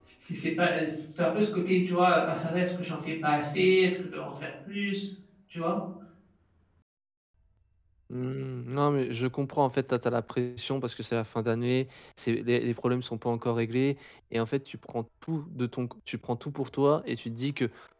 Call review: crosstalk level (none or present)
none